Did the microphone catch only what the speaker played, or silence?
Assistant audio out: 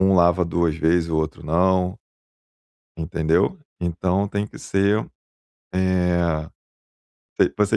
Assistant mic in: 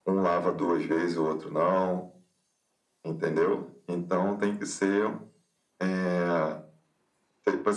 Yes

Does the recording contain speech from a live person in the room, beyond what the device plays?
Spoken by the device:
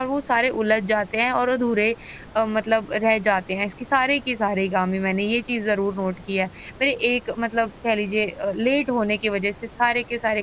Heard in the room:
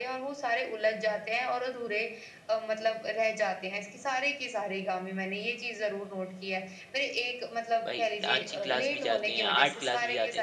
Yes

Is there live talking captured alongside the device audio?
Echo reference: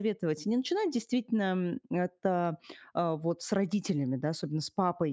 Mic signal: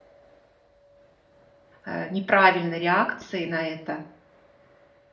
Yes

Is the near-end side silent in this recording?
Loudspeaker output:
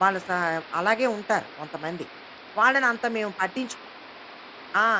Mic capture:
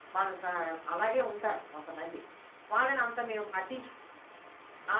Yes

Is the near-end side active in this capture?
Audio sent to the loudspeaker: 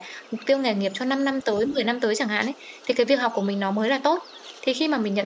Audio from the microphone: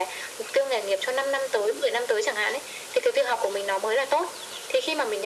No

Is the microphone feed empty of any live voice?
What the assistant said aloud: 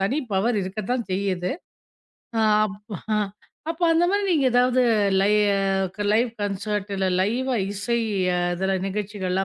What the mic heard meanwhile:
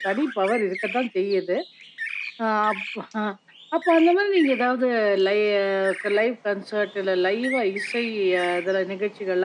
Yes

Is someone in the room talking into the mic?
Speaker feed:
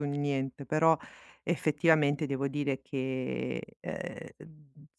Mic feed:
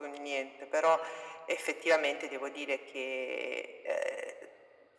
No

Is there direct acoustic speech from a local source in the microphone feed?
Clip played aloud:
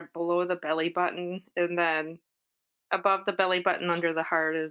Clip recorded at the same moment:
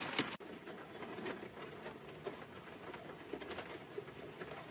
No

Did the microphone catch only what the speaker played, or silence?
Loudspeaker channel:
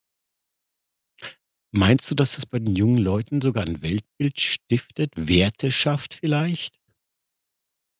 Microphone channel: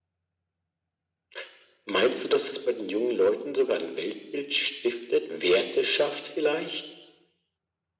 Yes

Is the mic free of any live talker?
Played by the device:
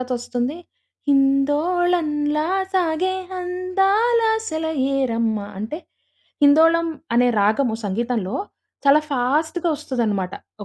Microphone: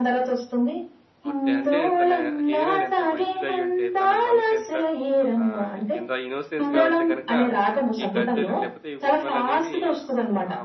No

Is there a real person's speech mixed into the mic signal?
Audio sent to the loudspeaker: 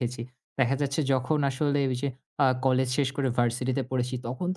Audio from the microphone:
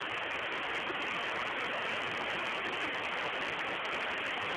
No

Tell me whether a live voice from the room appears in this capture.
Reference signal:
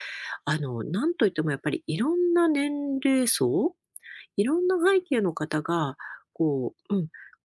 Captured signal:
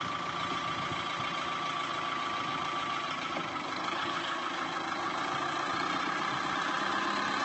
No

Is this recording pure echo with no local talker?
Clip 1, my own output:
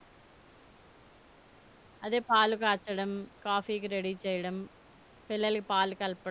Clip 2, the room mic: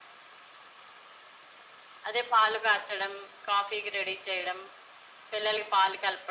Yes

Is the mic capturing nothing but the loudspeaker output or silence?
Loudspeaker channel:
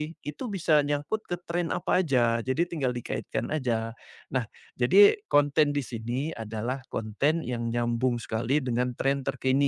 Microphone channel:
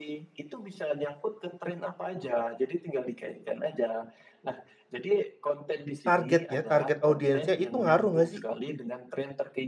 No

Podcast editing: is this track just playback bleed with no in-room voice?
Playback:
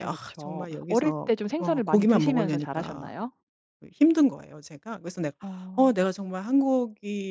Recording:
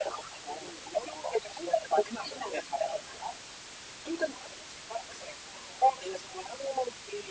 Yes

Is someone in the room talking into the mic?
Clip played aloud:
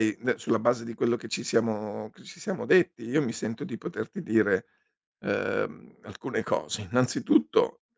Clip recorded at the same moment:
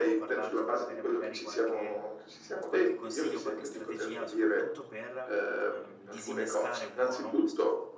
Yes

